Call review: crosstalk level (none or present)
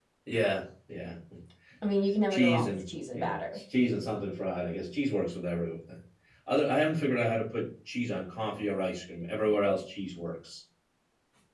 present